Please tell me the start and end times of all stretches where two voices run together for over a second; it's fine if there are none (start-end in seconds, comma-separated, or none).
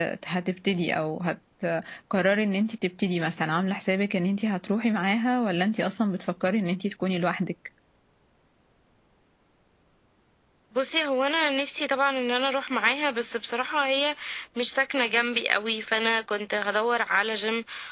none